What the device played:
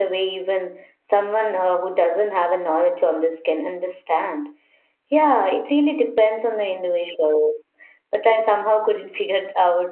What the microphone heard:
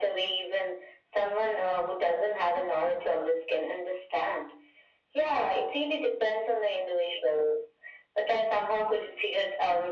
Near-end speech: none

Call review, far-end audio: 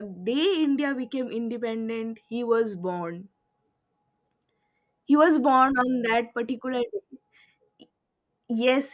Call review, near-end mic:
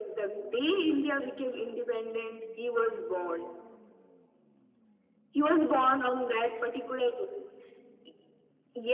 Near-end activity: none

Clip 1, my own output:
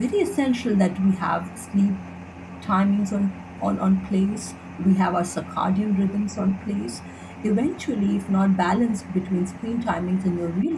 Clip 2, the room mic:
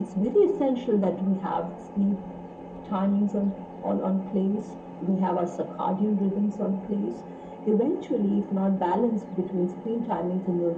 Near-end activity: none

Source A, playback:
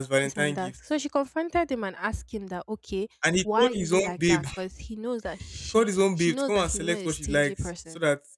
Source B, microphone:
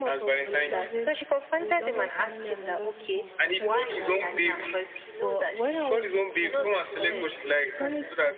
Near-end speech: present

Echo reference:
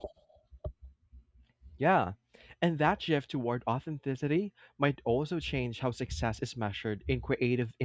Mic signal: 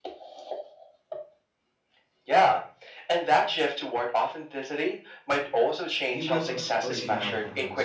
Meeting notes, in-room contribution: present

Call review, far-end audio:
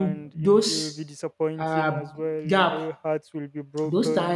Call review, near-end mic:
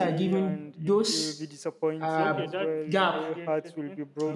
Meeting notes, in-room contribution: present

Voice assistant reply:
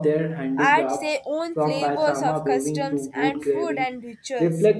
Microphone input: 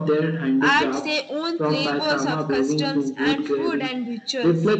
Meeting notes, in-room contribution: none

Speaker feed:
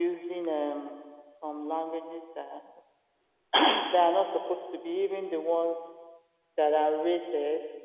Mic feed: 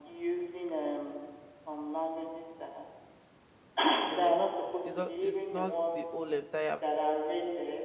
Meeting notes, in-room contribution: present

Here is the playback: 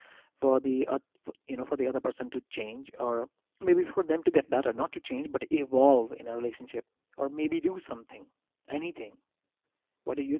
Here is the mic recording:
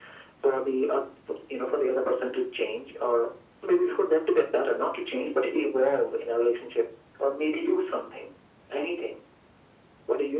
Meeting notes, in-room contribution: none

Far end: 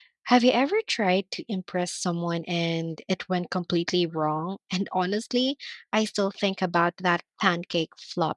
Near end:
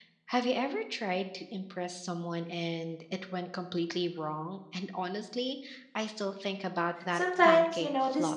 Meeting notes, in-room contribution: present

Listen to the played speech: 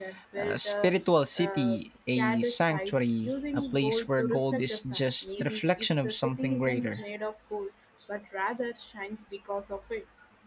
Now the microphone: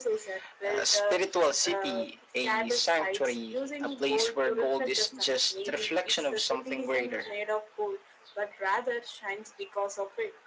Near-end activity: none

